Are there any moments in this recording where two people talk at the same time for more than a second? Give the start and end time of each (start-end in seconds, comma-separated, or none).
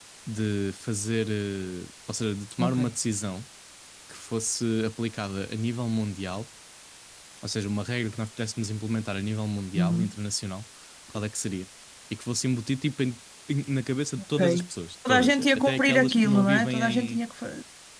15.1-17.2